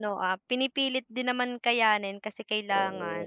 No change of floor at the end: No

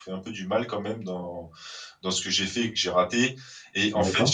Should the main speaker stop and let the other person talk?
No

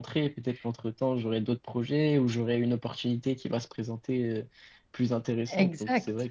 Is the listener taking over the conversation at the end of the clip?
Yes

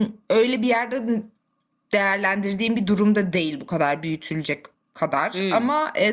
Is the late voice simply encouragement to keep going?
Yes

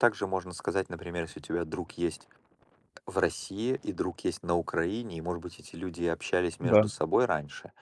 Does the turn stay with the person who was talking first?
Yes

